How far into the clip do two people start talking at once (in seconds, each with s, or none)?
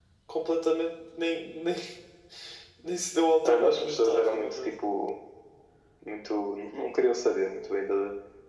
3.5 s